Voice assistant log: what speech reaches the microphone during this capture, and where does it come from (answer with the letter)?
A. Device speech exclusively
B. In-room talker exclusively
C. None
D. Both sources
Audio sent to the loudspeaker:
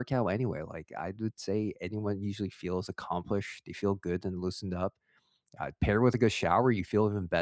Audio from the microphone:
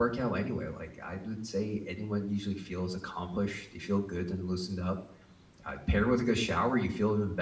A